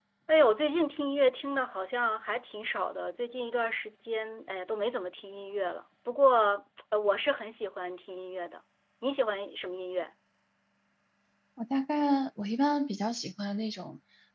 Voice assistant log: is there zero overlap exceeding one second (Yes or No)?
Yes